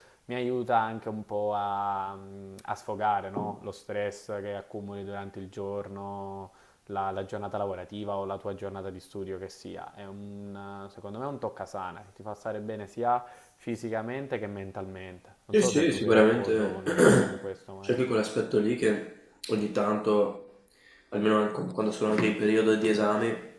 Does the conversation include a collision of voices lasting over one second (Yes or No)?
Yes